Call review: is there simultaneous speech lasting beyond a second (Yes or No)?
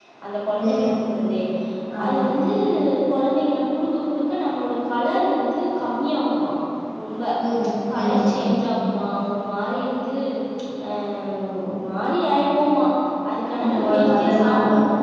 Yes